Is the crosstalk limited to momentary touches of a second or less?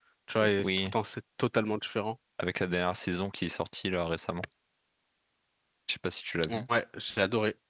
Yes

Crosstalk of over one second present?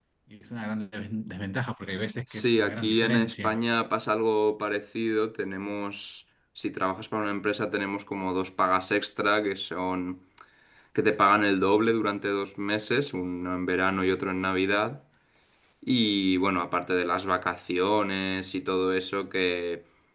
Yes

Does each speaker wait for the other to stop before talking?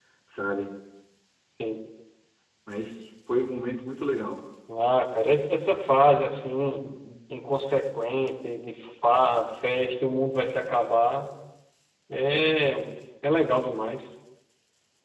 Yes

